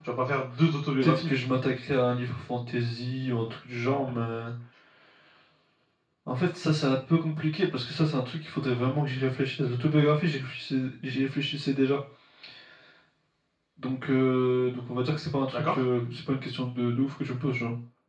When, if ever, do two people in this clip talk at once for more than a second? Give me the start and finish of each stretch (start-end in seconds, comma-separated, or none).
none